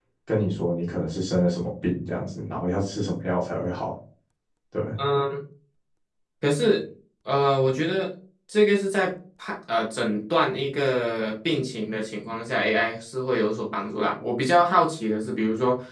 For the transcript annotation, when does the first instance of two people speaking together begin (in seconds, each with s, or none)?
none